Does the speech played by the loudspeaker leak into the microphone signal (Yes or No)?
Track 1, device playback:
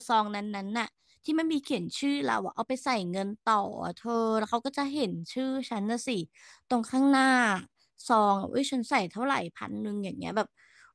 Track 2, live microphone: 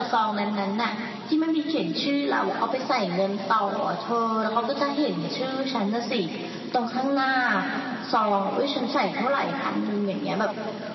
Yes